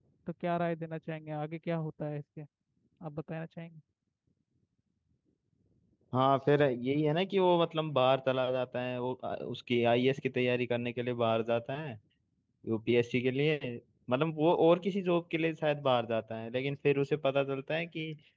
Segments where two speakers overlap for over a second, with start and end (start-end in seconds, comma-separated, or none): none